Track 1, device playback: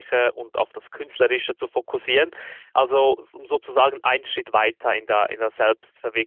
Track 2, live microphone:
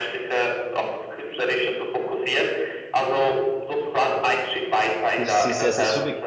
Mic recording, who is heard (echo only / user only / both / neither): both